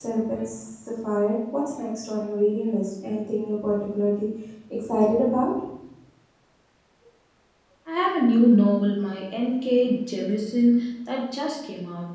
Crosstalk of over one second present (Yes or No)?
No